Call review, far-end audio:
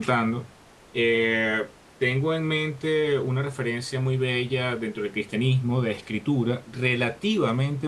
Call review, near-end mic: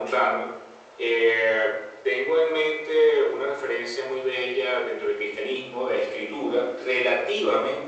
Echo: present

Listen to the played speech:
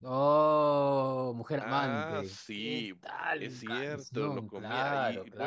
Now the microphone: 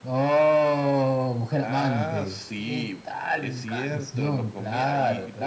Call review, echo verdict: present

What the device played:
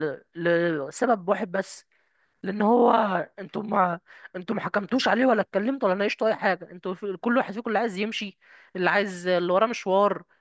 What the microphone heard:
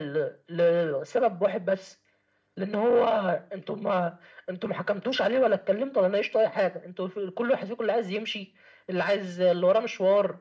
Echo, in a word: present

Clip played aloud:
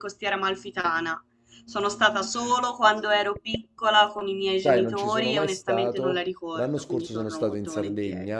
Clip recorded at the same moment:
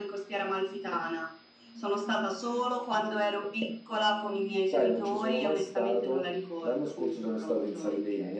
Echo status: present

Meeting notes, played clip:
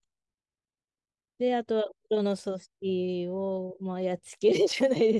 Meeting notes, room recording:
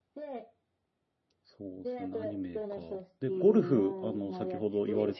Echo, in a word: present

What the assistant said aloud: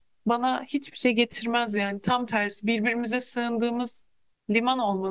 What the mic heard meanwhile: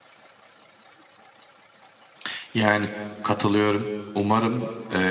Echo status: none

